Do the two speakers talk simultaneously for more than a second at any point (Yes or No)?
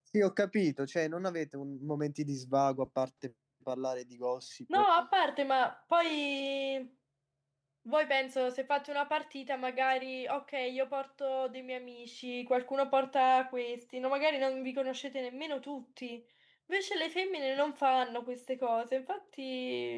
No